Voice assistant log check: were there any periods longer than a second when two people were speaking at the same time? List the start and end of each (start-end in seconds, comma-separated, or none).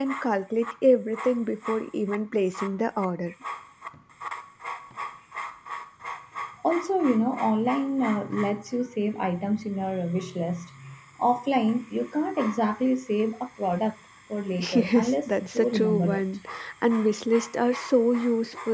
14.7-16.2